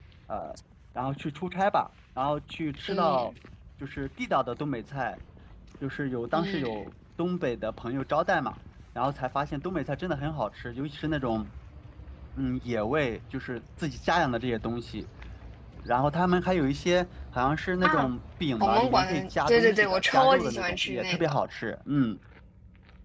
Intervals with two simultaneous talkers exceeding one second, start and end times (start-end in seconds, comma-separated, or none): 18.6-21.3